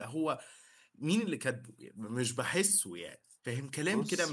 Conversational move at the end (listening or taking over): listening